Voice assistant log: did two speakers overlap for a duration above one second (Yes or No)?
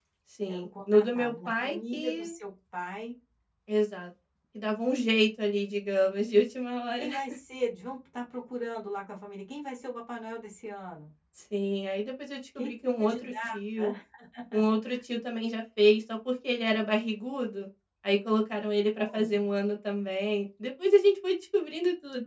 Yes